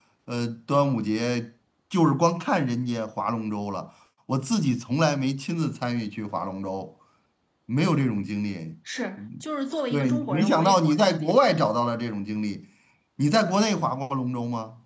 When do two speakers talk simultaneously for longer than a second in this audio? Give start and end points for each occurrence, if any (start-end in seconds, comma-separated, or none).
9.9-11.2